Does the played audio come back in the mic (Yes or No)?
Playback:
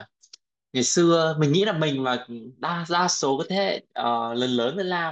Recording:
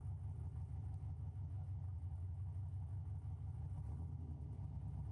No